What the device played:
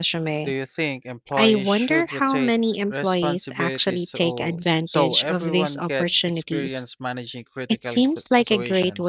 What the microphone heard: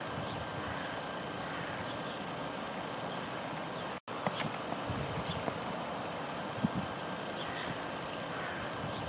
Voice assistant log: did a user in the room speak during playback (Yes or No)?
No